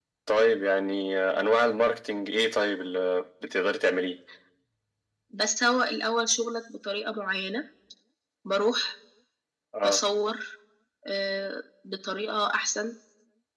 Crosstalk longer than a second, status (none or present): none